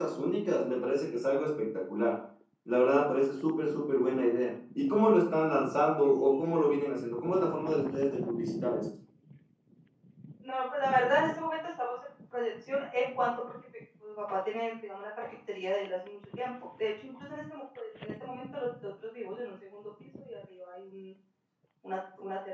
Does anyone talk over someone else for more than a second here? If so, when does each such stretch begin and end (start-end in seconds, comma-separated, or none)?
none